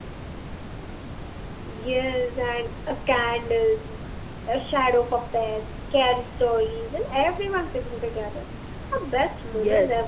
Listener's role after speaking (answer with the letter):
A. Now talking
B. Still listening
A